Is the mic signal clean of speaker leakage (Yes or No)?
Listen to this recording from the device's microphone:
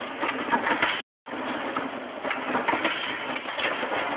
Yes